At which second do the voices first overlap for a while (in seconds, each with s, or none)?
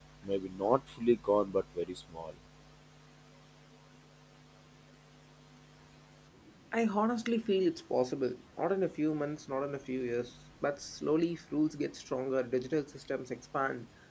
none